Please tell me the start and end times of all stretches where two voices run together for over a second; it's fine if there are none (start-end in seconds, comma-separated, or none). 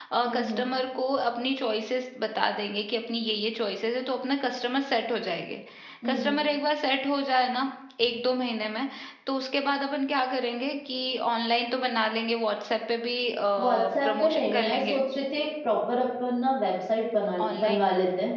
13.6-15.0